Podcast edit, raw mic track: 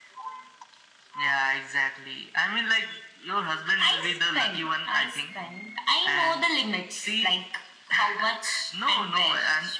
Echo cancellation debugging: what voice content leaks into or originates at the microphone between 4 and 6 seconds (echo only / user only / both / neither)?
echo only